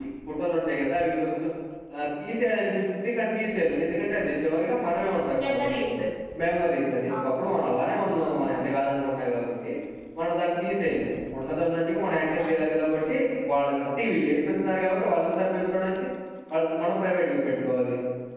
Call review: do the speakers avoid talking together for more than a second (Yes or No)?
Yes